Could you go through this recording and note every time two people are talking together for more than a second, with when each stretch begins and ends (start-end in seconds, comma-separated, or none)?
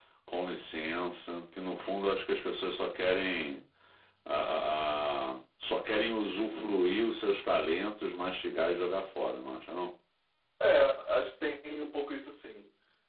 none